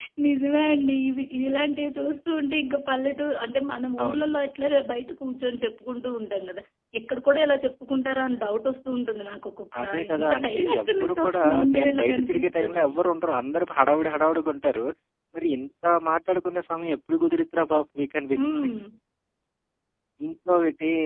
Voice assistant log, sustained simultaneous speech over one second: present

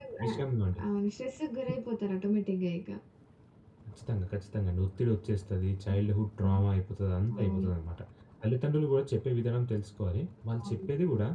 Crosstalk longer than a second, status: none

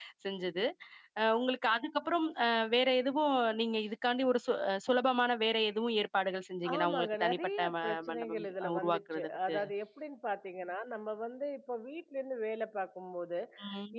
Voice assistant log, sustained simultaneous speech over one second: present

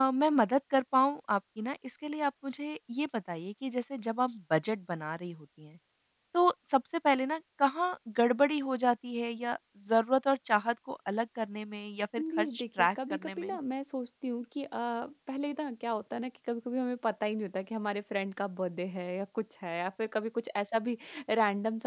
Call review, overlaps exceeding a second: present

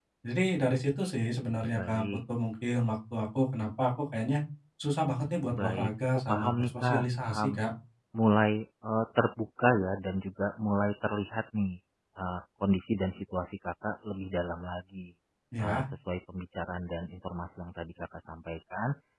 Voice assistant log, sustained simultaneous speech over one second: present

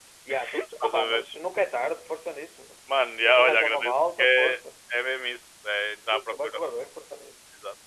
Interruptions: present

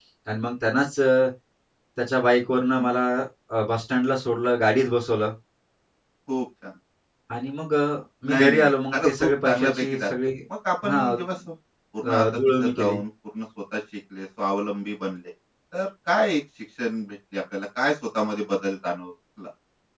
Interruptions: present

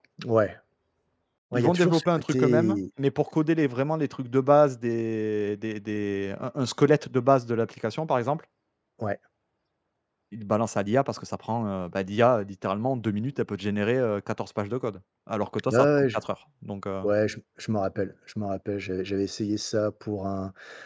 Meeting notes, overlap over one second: present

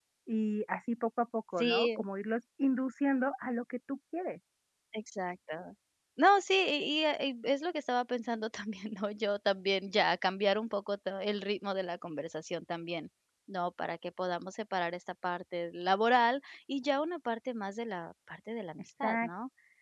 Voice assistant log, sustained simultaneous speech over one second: none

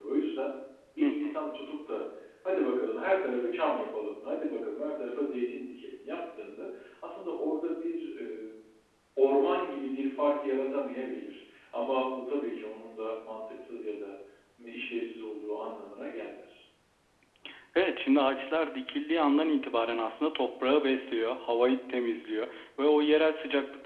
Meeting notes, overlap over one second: none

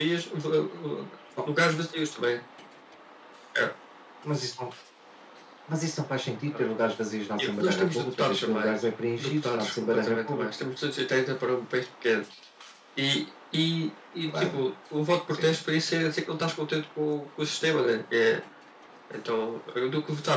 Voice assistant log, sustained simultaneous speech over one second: present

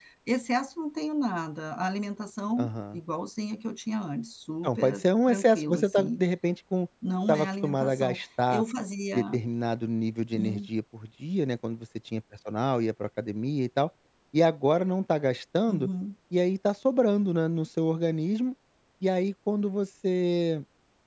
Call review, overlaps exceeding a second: present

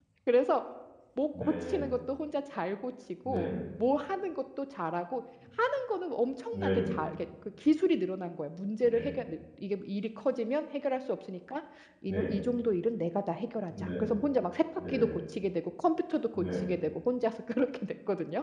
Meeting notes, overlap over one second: none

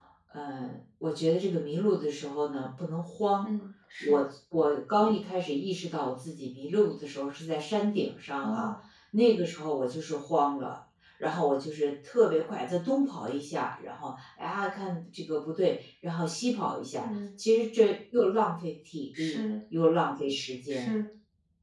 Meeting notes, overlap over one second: none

